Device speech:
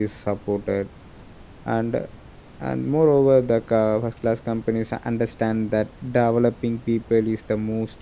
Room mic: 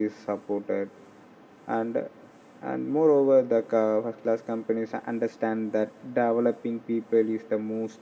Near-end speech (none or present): none